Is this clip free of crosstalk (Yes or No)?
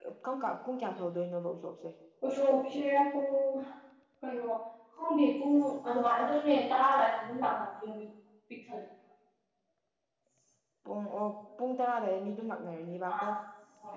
Yes